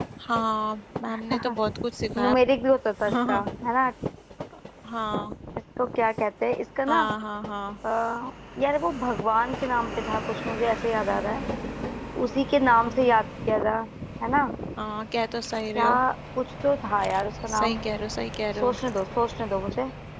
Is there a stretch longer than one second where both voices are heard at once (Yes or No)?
No